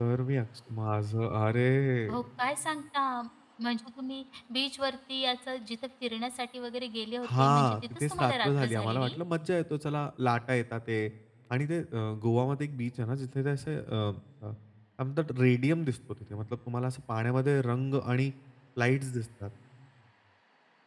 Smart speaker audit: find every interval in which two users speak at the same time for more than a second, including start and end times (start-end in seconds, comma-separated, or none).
7.2-9.1